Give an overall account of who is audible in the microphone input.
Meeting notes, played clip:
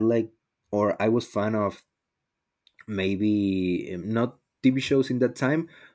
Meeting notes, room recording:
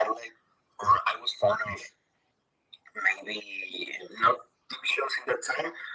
echo only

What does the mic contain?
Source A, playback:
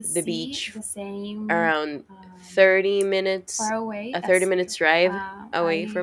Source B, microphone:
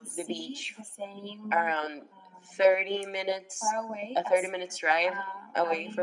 echo only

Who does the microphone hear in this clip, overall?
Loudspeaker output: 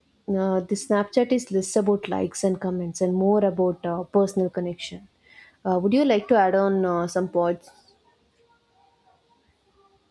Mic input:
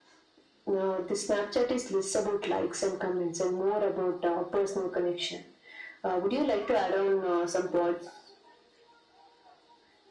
echo only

